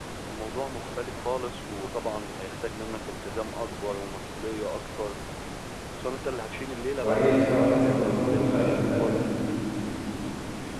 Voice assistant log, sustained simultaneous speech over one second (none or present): present